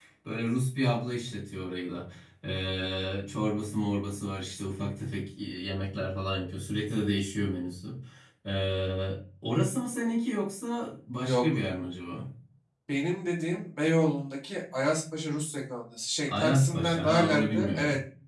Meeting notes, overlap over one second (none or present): present